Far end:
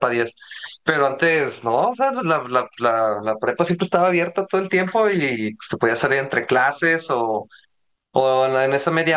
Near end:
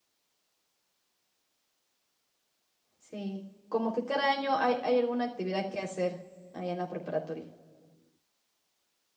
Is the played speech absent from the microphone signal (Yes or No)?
Yes